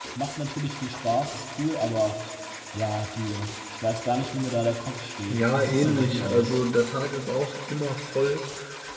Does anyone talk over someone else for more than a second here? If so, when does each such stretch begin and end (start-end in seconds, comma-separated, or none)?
5.3-6.6